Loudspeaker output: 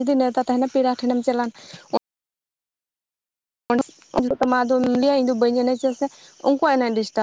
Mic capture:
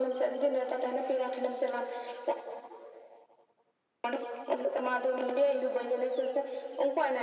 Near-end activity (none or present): none